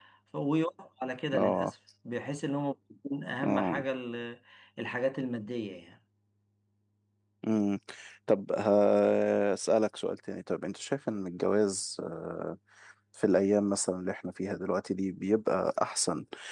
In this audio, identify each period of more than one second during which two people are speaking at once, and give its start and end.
none

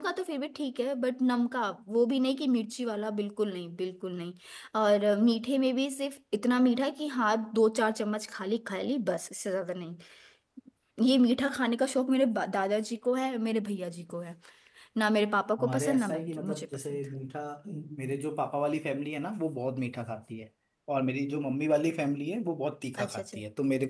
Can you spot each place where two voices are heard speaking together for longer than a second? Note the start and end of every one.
15.6-17.0

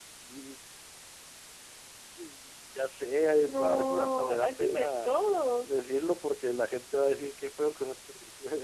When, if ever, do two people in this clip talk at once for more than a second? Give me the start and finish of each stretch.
3.4-5.7

